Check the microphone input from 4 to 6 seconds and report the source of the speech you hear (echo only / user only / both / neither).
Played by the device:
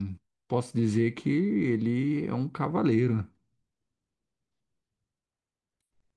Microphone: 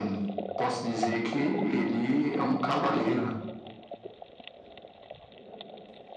neither